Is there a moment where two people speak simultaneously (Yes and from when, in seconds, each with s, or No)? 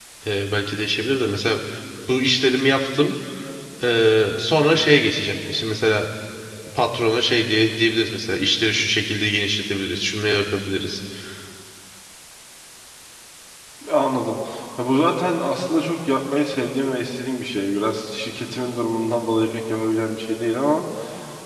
No